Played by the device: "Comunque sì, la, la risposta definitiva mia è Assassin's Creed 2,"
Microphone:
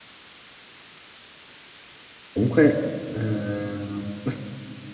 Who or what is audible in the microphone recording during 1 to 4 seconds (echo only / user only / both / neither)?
user only